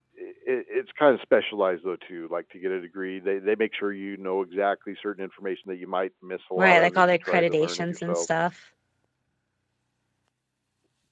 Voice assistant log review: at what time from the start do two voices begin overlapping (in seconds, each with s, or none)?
6.6 s